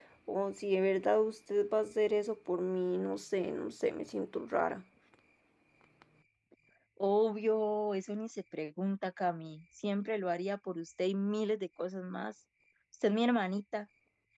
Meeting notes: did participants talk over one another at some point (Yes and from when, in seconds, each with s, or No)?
No